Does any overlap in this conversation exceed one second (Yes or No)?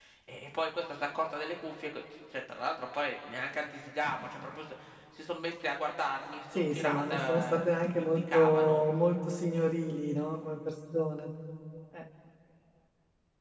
Yes